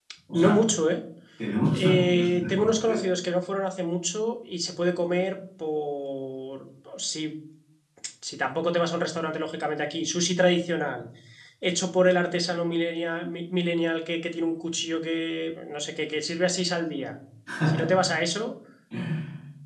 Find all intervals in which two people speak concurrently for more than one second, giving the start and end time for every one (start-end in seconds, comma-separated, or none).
1.7-3.0